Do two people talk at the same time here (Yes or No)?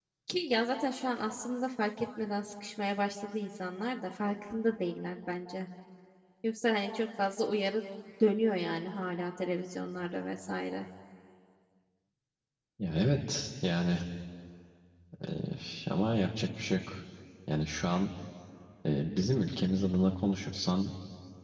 No